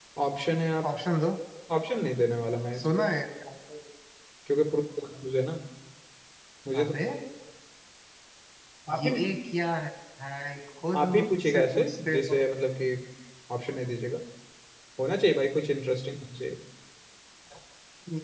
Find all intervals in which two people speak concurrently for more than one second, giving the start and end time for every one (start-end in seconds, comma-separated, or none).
10.9-12.4